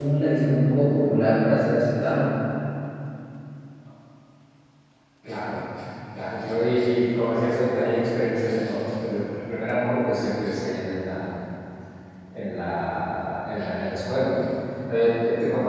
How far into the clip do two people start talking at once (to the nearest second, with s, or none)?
none